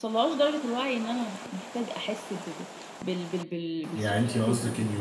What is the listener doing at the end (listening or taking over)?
taking over